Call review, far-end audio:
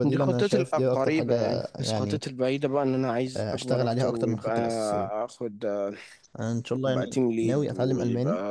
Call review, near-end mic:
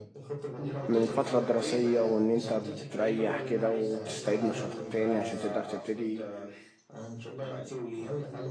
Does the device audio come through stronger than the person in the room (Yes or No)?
No